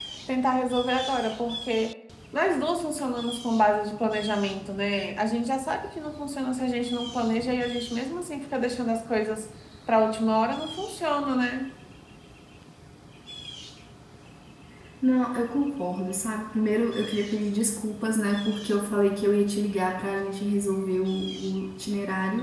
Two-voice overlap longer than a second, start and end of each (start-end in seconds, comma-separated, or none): none